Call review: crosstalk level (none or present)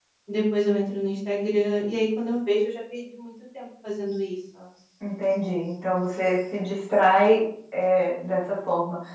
none